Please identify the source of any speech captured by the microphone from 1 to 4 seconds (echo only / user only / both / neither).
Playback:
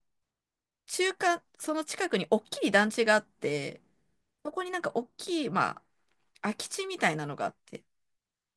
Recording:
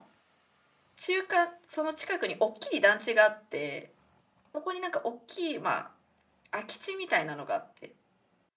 echo only